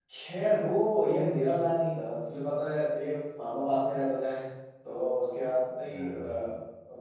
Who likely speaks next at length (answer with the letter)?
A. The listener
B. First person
B